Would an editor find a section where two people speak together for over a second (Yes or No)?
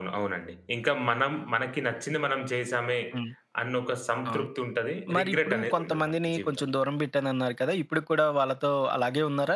Yes